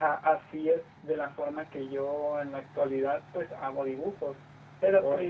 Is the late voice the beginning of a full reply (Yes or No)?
No